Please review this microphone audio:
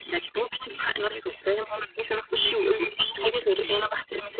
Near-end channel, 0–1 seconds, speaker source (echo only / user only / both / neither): echo only